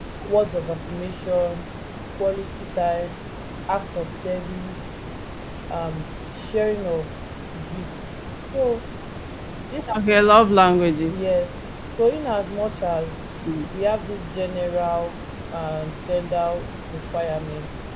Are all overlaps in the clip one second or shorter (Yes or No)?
Yes